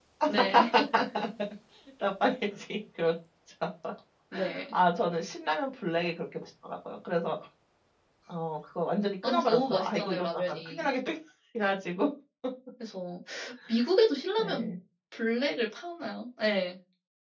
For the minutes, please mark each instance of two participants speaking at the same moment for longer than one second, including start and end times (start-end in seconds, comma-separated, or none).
9.2-10.9